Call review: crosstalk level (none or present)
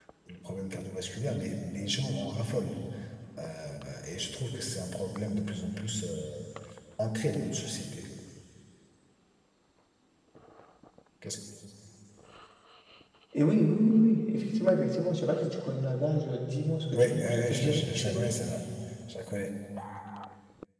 present